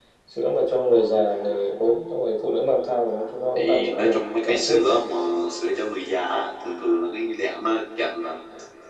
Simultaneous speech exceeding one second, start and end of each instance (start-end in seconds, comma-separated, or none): 3.6-4.9